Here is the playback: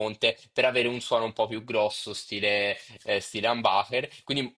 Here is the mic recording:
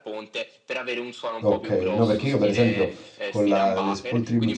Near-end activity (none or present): present